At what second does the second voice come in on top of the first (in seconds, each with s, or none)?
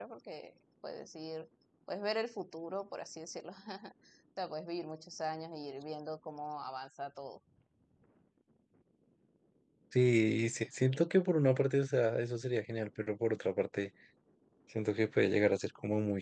none